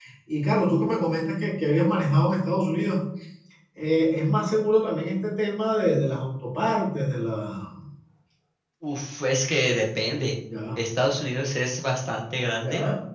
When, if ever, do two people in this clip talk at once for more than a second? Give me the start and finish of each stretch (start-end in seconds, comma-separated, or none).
none